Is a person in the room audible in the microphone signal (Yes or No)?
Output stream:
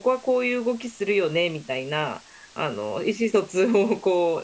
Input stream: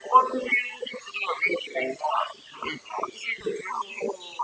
No